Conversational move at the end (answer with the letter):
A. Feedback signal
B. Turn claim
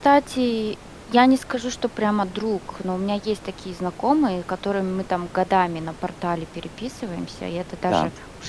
A